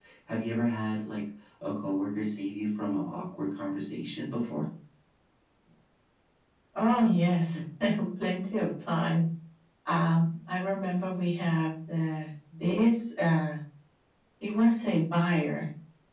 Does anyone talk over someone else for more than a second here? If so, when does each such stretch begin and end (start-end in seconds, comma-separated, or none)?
none